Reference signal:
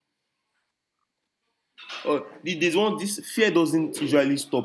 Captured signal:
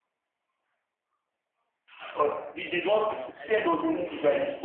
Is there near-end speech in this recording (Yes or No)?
Yes